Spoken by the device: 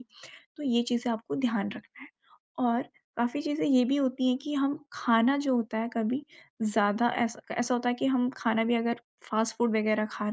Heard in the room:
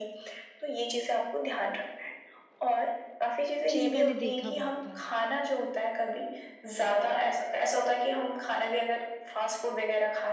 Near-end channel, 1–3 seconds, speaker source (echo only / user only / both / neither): echo only